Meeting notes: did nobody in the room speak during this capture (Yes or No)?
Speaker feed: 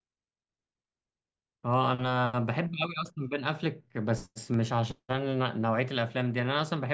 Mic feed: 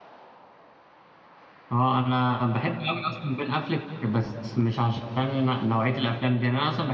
Yes